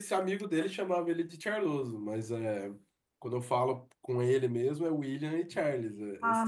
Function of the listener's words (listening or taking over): taking over